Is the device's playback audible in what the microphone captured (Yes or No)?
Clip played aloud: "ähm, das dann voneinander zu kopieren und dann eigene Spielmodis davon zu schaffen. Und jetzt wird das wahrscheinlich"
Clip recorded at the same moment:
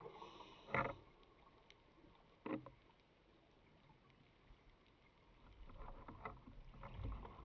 No